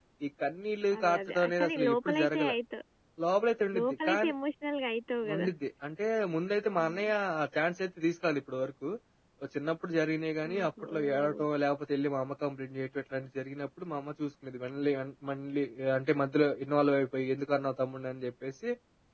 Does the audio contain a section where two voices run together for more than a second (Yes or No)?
Yes